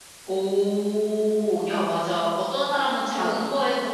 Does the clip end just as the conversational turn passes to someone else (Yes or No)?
No